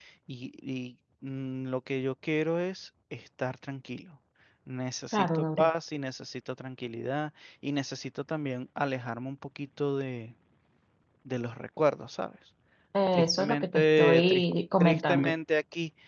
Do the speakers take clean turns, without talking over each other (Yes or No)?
No